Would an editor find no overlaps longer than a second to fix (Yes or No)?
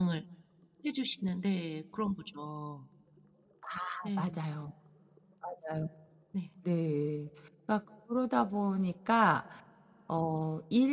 Yes